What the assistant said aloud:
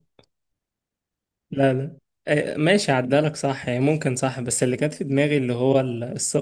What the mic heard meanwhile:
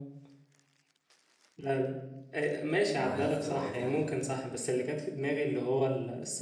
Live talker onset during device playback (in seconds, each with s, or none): 3.0 s